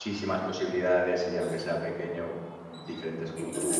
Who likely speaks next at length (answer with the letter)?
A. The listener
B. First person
A